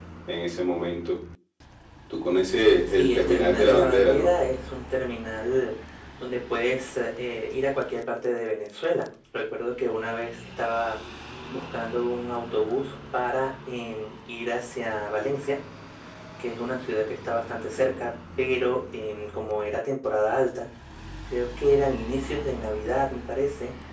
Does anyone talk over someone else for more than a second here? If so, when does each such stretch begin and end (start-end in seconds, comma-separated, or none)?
2.9-4.3